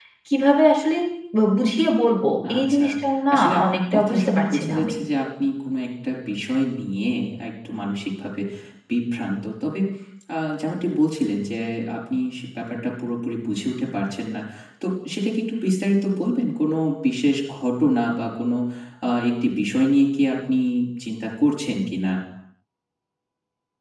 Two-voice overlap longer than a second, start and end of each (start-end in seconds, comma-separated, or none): 3.3-4.9